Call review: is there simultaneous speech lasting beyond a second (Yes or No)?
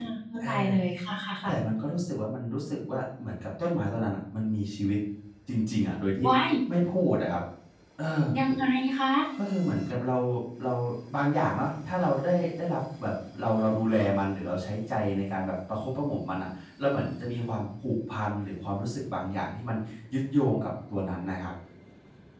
No